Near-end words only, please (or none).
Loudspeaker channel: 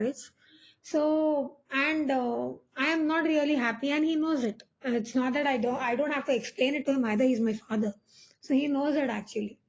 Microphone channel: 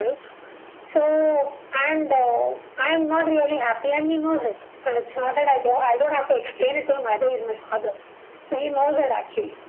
none